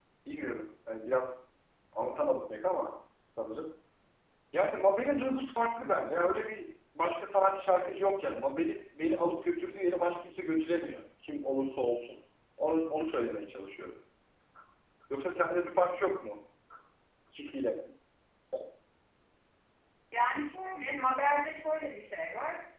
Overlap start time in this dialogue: none

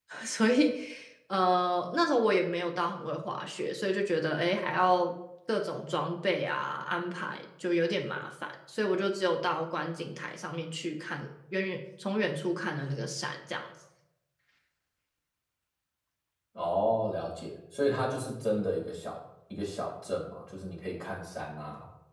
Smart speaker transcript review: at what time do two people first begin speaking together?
none

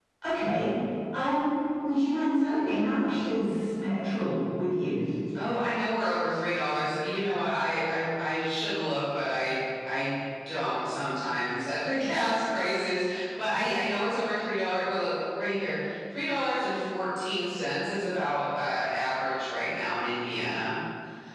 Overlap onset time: none

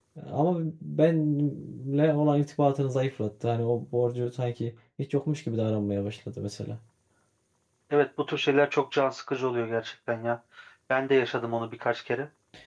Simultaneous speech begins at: none

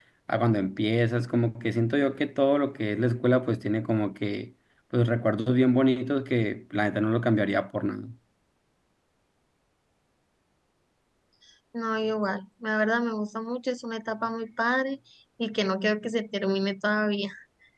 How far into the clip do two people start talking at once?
none

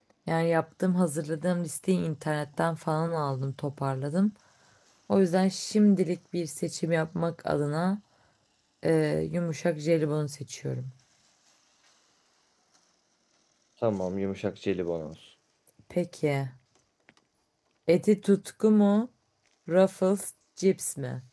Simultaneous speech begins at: none

